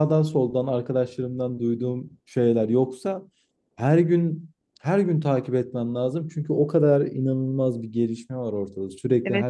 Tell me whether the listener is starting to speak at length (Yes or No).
Yes